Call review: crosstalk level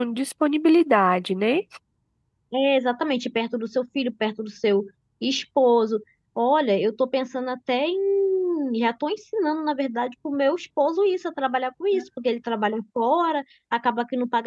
none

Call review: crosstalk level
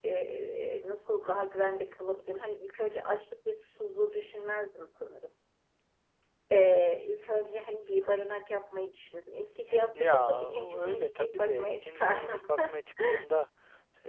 present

